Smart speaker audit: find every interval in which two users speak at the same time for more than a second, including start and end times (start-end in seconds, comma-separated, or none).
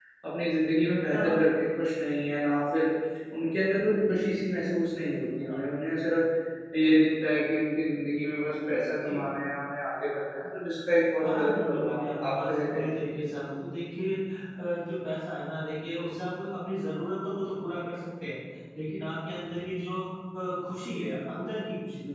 11.2-12.8